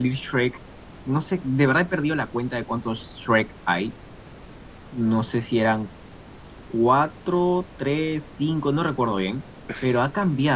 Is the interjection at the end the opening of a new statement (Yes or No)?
No